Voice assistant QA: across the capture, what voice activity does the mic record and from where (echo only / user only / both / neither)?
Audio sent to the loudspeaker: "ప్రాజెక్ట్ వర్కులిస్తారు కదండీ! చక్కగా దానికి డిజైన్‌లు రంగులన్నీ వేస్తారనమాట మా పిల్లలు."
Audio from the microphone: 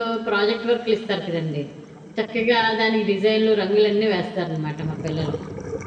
echo only